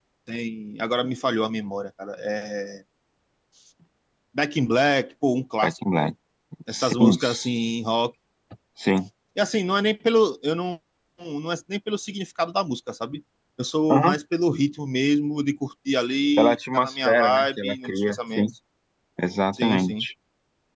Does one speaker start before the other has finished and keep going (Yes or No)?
Yes